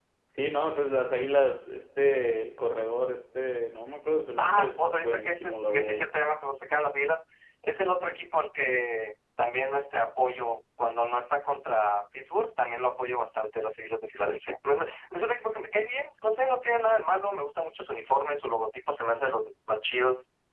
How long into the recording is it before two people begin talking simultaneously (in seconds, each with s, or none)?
4.4 s